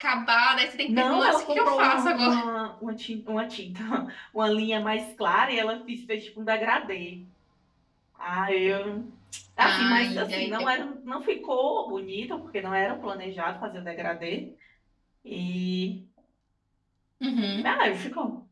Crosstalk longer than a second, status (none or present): present